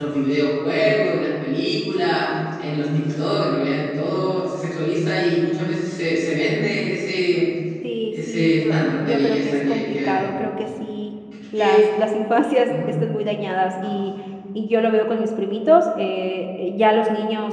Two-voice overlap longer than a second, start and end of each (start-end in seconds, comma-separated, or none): 8.1-10.3